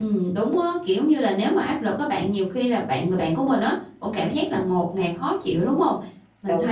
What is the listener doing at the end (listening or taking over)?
listening